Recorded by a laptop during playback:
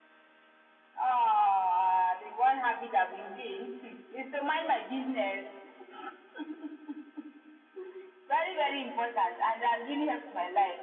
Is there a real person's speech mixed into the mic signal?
No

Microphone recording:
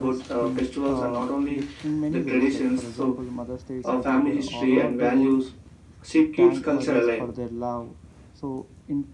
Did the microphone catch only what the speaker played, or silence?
No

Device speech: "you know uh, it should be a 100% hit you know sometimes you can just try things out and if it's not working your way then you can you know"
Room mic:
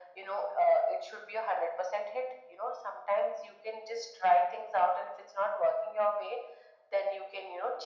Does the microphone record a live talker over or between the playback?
No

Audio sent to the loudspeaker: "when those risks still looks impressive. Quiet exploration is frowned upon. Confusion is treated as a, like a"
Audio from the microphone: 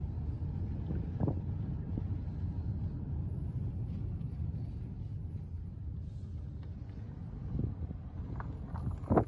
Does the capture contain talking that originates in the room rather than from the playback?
No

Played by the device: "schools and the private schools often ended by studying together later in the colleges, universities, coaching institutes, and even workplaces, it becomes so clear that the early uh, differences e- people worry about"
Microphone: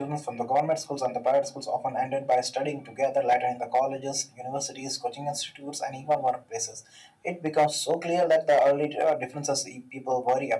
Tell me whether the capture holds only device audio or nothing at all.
Yes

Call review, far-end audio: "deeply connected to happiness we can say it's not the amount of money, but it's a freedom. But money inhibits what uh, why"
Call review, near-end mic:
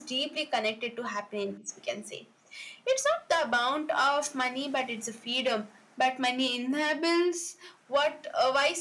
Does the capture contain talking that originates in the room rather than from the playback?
No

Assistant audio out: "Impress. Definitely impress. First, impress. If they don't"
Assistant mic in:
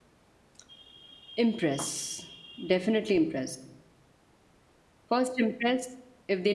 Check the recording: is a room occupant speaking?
No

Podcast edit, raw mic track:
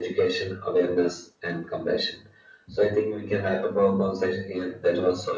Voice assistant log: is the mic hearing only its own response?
Yes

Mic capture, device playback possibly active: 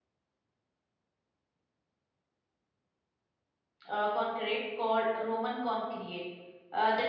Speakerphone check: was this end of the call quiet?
No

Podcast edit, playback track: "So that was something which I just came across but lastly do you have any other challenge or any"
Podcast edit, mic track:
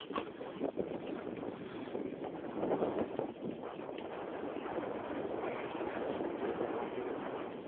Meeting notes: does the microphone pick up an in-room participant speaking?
No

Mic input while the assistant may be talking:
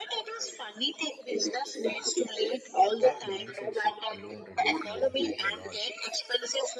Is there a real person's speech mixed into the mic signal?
Yes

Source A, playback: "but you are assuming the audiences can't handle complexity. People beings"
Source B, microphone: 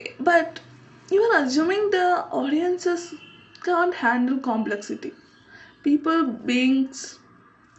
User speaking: No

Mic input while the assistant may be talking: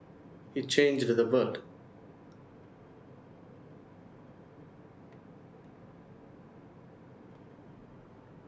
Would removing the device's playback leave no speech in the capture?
No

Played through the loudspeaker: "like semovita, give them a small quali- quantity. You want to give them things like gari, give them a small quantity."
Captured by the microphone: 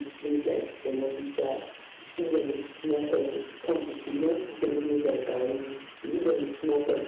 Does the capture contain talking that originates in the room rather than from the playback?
No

